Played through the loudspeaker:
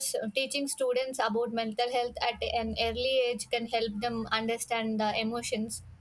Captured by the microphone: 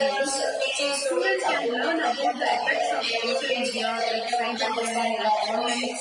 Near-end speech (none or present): present